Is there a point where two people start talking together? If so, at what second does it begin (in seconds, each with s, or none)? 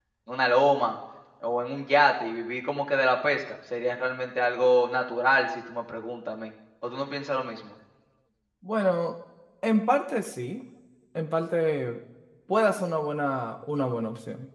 none